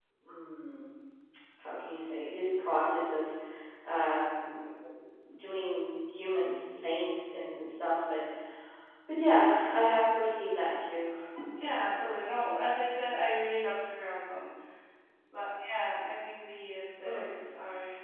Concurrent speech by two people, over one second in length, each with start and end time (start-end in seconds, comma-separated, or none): none